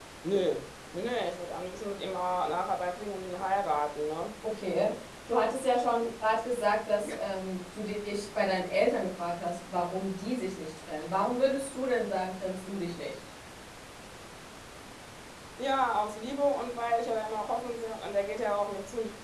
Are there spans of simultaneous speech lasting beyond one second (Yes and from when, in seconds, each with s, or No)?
No